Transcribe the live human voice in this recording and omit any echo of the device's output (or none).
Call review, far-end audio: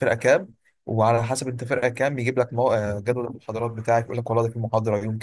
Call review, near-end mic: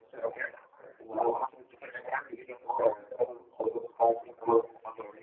none